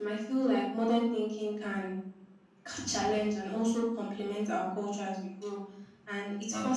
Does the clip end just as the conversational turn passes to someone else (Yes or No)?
No